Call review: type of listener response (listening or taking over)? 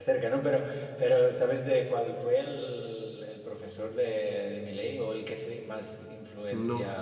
listening